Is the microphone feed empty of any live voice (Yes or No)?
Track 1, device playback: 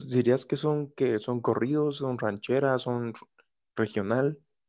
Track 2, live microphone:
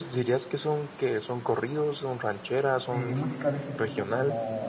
No